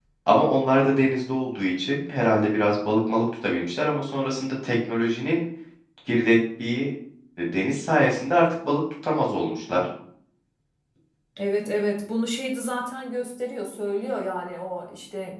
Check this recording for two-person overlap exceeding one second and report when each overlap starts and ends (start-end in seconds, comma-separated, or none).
none